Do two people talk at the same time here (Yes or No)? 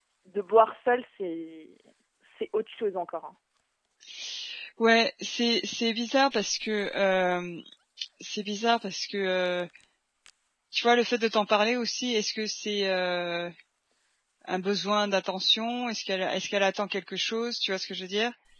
No